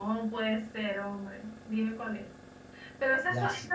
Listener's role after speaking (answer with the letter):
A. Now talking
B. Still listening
B